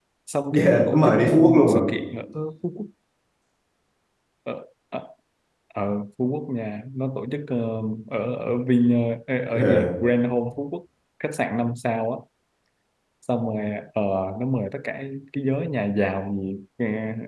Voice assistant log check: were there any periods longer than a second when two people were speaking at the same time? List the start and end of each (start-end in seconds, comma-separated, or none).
0.6-1.8